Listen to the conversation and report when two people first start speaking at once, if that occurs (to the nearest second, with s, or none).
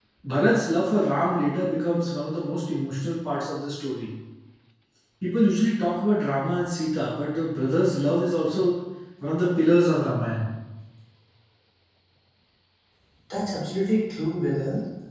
none